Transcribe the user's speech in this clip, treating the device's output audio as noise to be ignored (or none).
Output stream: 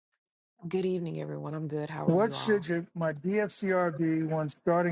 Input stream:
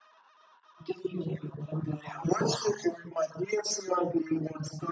none